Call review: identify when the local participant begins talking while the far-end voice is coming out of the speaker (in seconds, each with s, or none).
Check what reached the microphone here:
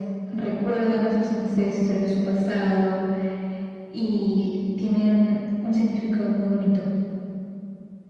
none